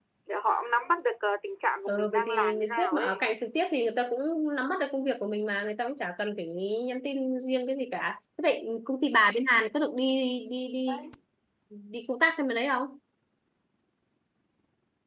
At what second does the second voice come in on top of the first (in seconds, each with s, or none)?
1.9 s